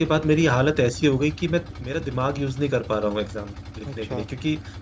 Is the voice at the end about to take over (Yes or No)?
No